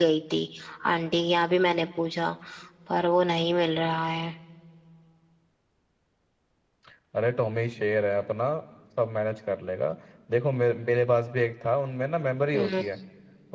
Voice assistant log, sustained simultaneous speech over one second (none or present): none